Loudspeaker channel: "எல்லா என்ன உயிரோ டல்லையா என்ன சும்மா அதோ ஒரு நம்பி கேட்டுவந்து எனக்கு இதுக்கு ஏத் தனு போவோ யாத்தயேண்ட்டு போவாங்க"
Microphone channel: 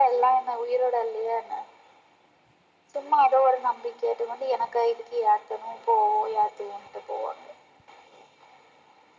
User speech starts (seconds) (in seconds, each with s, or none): none